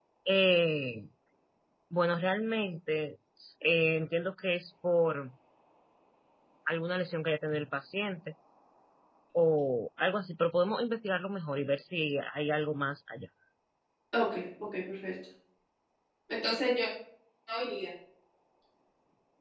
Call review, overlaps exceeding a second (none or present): none